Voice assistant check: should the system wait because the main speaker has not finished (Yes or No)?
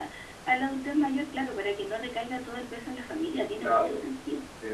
No